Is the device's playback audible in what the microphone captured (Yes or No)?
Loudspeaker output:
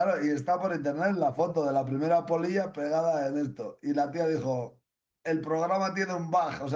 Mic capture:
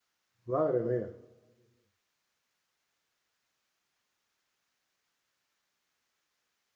No